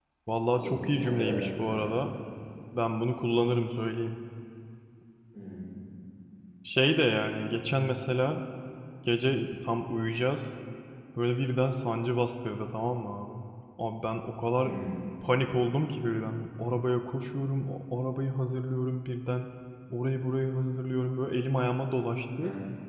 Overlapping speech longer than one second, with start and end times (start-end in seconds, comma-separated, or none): 0.5-2.1